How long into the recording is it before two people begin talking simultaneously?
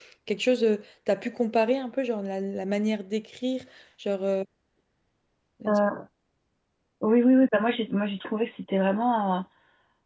none

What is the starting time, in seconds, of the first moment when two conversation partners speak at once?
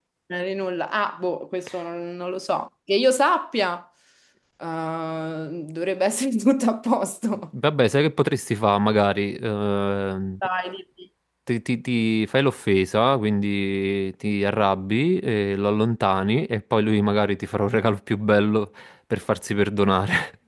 none

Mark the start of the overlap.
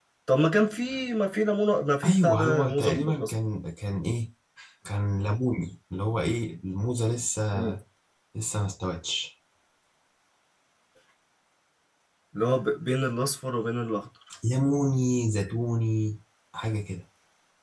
2.0 s

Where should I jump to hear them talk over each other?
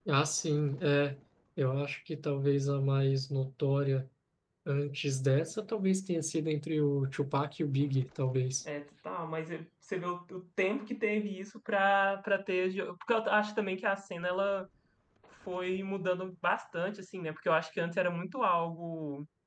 none

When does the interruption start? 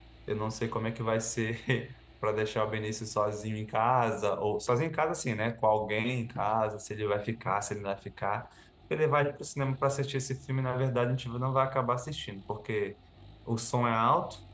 none

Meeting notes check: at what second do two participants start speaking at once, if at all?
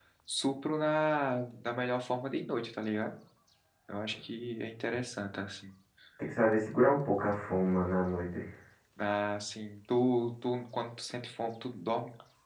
none

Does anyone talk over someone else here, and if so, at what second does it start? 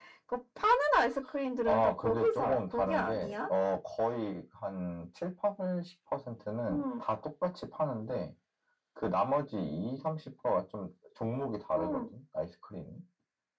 1.7 s

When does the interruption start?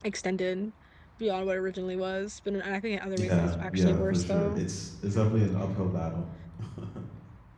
3.2 s

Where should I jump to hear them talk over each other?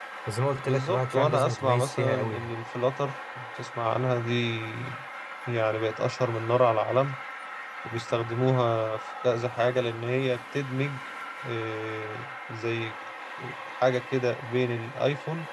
0.7 s

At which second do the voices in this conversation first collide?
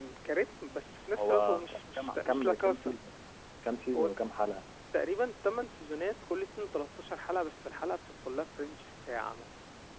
1.2 s

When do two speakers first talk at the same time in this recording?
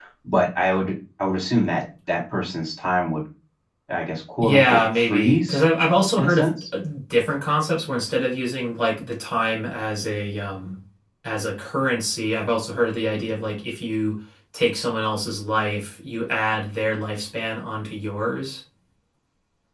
4.4 s

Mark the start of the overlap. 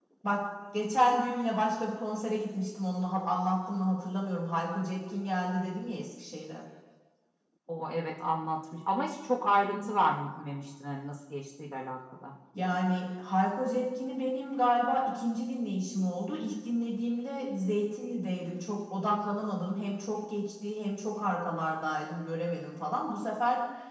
none

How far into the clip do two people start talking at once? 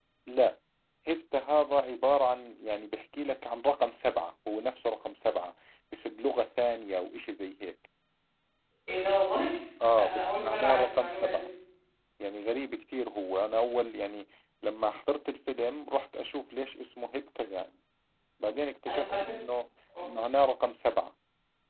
9.9 s

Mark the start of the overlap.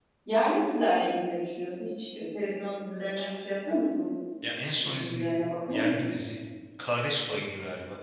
4.8 s

